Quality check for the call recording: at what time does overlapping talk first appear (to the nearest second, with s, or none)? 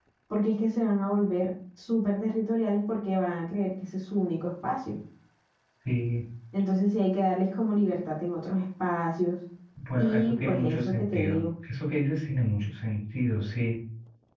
10 s